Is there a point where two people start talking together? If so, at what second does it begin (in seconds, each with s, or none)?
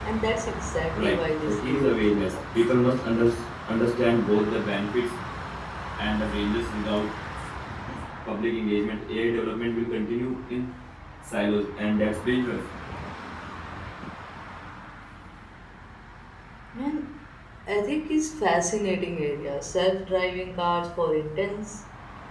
0.9 s